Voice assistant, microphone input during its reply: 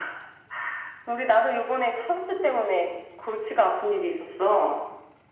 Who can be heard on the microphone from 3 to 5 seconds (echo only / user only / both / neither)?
echo only